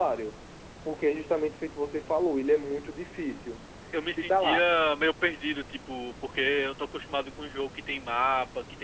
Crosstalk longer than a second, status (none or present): none